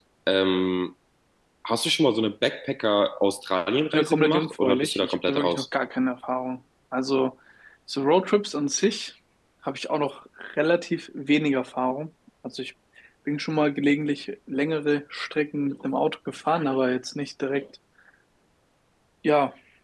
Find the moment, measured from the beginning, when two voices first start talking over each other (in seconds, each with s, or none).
3.9 s